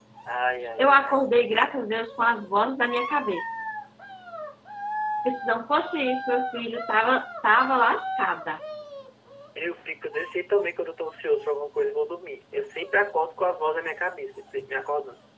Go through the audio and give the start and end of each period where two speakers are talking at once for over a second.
none

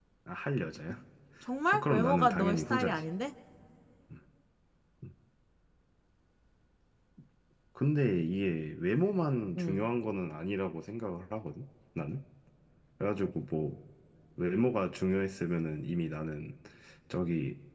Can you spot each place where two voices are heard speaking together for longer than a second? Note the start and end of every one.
1.7-3.0

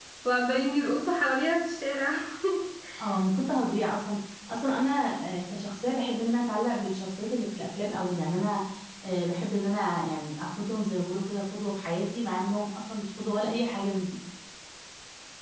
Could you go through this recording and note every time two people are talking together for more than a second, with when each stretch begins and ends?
none

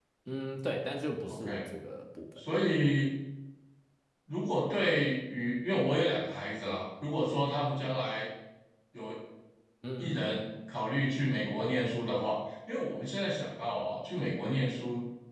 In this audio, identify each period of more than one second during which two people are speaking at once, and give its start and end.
none

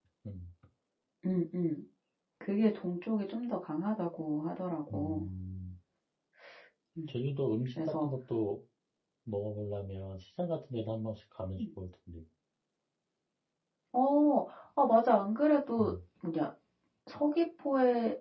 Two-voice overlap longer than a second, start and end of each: none

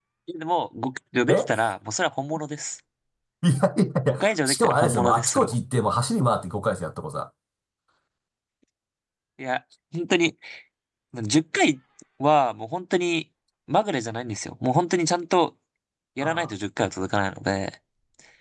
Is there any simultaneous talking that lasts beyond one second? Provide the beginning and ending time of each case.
4.1-5.5

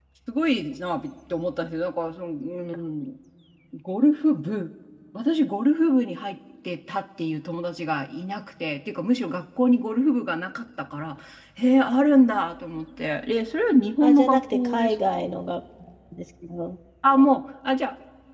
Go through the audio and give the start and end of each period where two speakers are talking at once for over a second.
14.0-15.3

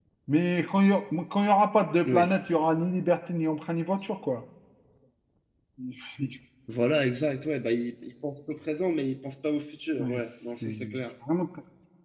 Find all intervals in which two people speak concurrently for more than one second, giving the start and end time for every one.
none

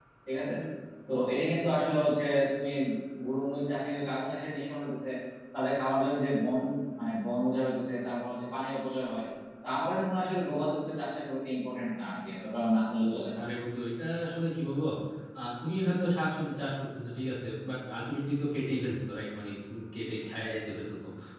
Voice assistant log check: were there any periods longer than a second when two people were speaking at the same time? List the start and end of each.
none

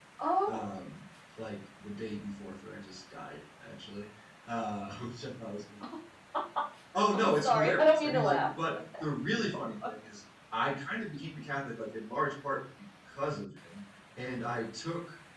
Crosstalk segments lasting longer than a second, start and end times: 7.1-8.5

